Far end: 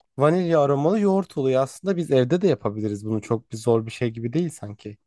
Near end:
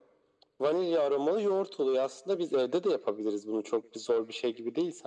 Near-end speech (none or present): none